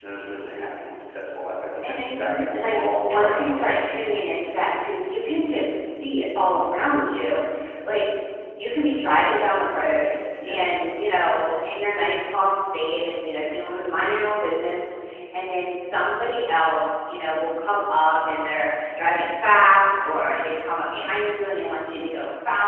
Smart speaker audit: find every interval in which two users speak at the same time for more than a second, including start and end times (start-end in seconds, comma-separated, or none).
1.8-3.9